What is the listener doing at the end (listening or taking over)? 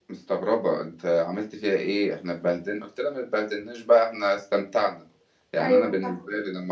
listening